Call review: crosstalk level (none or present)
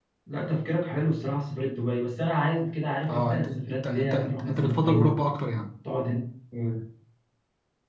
present